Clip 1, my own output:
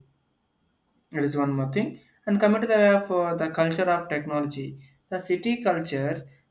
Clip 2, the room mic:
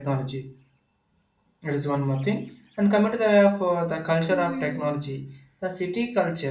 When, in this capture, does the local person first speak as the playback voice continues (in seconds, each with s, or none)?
4.3 s